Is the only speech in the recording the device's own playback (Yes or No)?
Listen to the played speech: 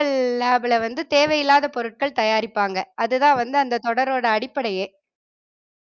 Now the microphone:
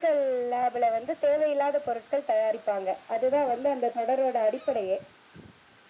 Yes